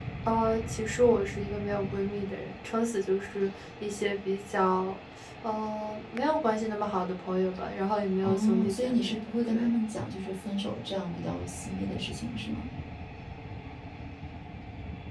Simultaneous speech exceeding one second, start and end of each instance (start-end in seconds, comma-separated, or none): 8.2-9.8